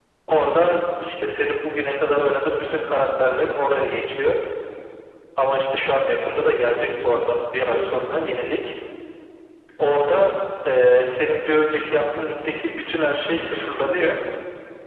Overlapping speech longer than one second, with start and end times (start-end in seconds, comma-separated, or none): none